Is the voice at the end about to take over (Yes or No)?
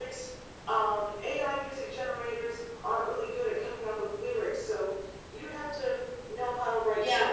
No